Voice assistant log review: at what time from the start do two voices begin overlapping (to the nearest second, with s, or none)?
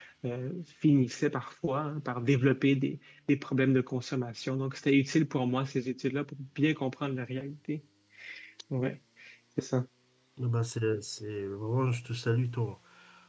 none